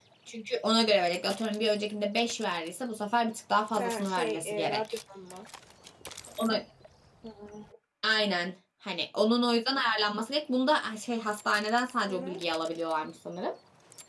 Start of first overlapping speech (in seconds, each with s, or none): 3.8 s